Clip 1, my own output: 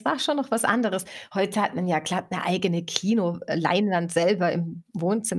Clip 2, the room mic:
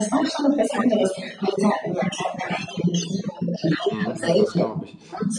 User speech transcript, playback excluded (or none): Mhm. Ja, das glaube ich.